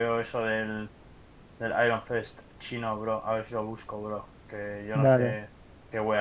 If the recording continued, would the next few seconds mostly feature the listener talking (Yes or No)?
No